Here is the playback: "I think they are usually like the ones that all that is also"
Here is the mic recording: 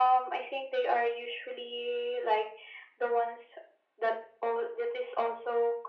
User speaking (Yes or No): No